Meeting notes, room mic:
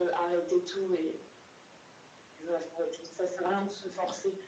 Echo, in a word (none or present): present